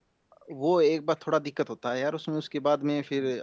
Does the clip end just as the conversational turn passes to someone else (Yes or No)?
No